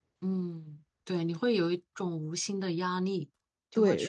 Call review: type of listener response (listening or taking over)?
taking over